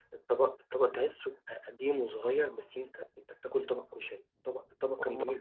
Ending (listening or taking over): listening